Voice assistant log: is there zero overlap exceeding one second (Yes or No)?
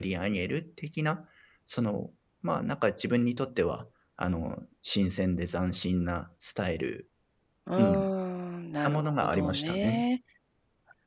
No